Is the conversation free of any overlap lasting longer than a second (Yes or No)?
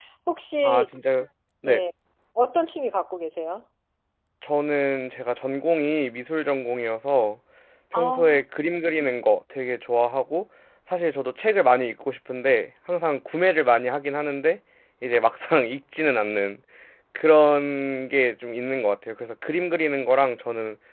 Yes